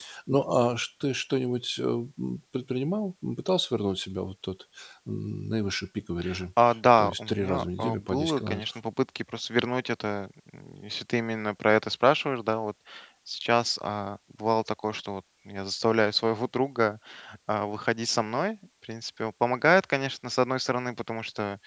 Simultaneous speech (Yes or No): Yes